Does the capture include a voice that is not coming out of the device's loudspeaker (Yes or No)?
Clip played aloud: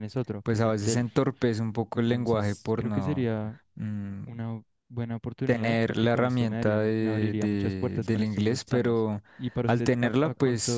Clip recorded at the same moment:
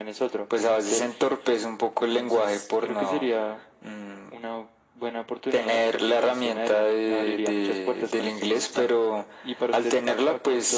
No